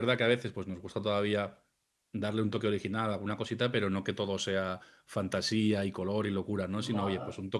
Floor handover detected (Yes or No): No